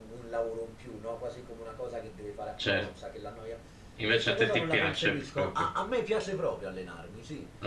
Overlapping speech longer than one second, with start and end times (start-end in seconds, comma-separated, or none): 4.0-5.5